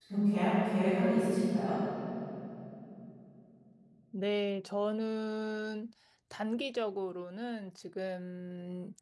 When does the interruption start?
none

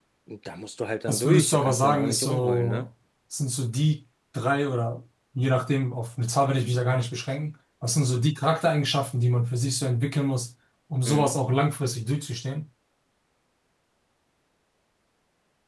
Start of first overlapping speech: 1 s

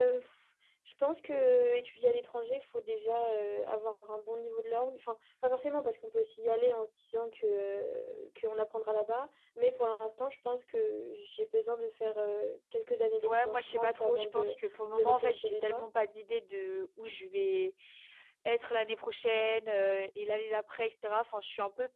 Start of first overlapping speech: 13 s

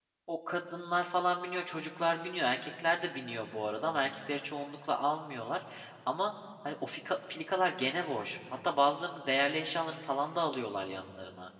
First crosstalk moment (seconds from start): none

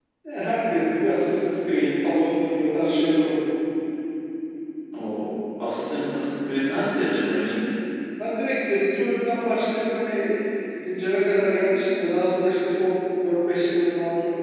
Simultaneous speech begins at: none

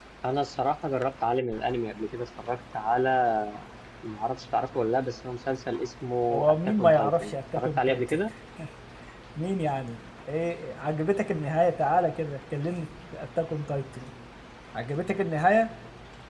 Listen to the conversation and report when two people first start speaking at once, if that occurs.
6 s

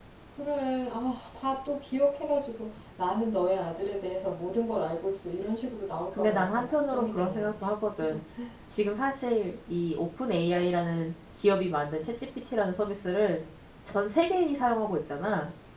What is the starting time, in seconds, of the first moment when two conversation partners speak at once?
6 s

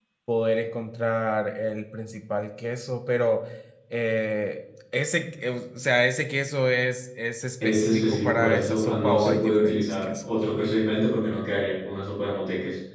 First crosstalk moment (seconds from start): 8 s

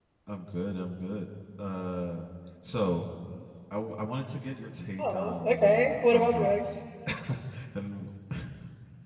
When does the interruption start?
5 s

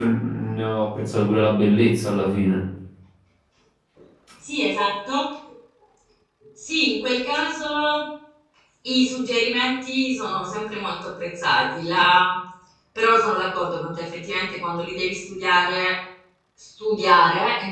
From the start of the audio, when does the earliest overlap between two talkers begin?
none

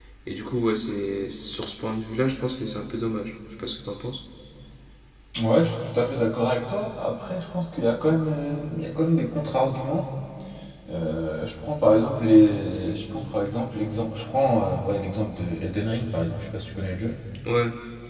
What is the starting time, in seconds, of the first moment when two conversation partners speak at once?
none

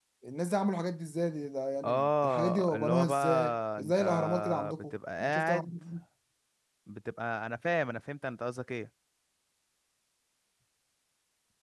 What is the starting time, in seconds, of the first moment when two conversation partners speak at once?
2 s

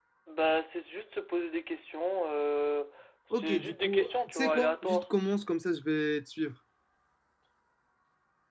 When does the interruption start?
3 s

